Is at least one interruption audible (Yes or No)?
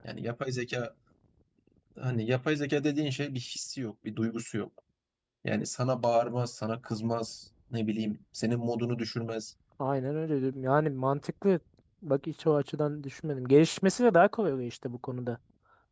No